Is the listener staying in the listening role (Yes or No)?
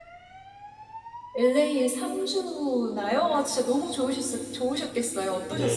No